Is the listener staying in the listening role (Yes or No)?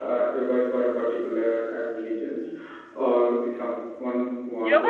No